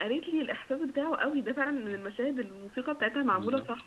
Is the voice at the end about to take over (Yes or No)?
Yes